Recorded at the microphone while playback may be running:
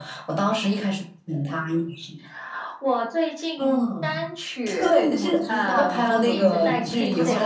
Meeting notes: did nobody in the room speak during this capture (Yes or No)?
No